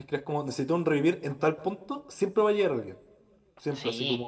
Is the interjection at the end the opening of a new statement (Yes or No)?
No